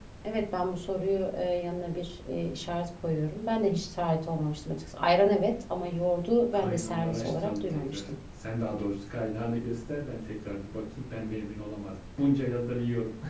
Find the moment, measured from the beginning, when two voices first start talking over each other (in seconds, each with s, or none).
6.5 s